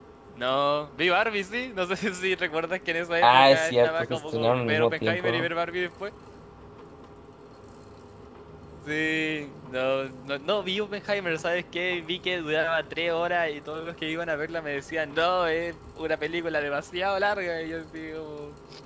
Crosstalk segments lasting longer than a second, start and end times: 3.2-5.5

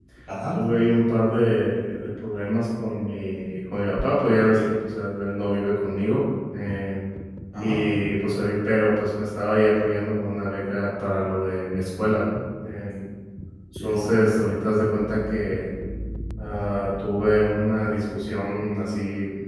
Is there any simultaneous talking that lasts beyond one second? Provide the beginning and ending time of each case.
none

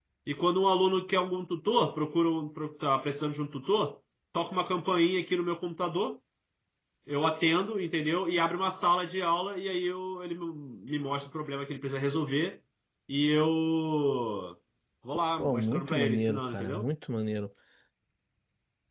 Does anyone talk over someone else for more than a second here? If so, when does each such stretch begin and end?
15.4-16.9

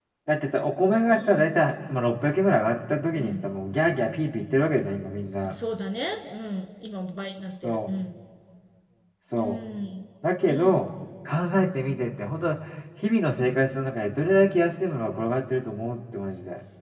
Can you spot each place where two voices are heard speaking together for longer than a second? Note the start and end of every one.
none

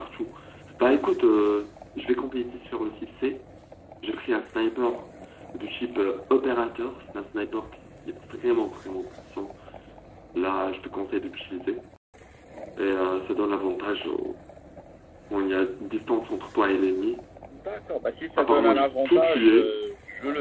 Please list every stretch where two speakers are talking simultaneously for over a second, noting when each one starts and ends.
18.4-19.8

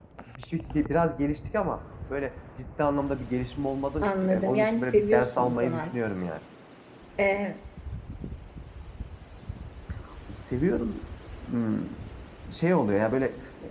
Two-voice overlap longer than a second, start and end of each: 4.0-6.0

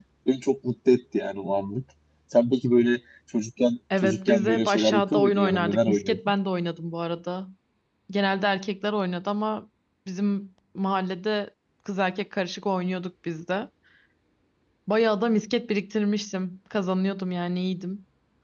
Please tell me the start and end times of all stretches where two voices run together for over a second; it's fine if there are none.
4.0-6.2

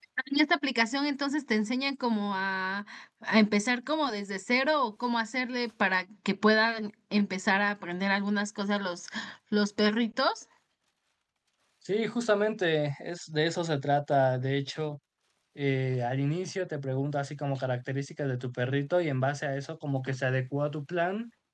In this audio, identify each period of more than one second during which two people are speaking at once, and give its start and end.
none

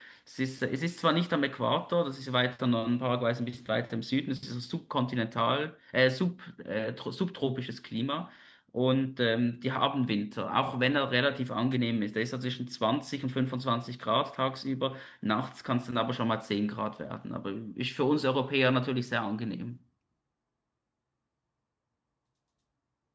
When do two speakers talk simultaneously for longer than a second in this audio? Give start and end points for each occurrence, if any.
none

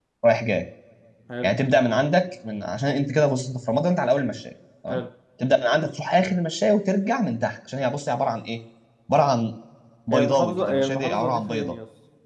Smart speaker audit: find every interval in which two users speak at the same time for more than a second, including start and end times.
10.1-11.8

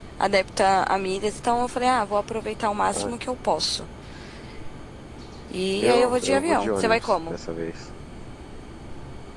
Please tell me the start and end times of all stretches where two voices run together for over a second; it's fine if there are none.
5.8-7.4

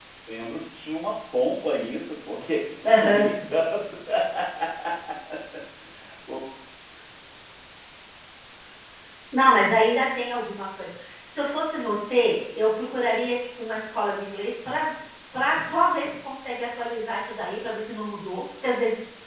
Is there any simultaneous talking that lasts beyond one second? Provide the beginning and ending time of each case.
none

